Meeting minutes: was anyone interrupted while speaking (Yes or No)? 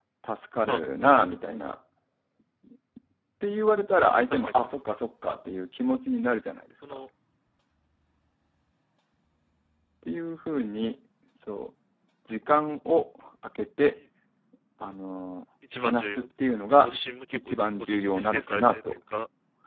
Yes